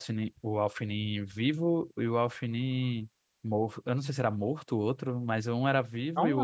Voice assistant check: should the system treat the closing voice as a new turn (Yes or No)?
No